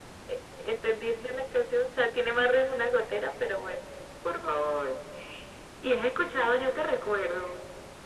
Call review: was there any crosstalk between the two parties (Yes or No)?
No